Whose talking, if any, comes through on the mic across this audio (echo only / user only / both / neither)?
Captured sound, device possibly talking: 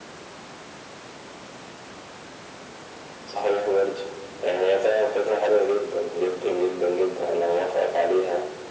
echo only